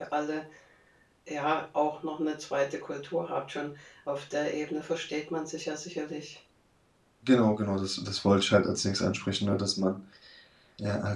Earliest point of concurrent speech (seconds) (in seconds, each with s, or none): none